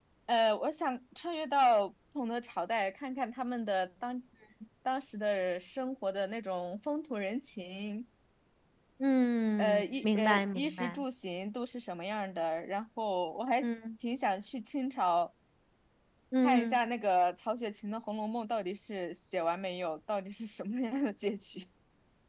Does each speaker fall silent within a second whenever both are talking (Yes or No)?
No